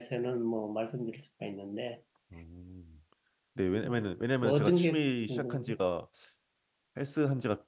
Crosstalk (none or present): present